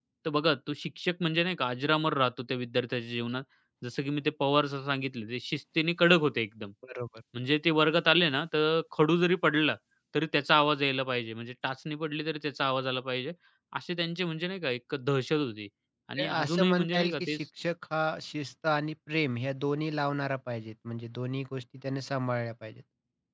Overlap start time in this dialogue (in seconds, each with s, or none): 16.2 s